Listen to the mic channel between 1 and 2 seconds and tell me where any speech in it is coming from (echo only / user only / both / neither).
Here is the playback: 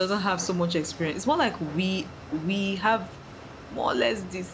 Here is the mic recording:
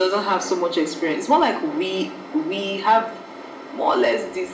echo only